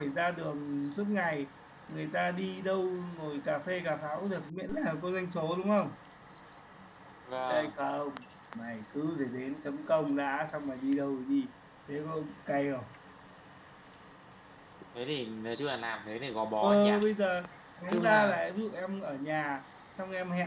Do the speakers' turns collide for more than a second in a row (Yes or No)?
No